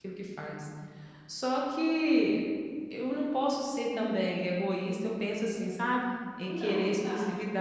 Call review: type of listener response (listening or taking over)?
listening